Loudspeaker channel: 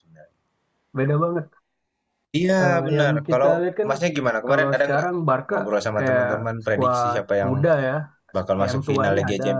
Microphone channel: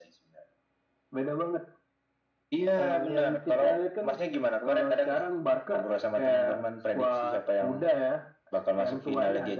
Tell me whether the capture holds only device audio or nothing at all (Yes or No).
Yes